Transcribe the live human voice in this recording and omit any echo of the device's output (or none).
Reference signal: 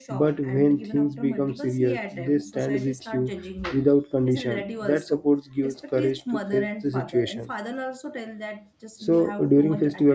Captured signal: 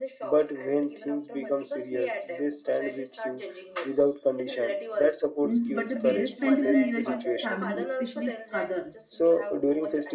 means, but the biggest strength is in Neeraj's family, especially his father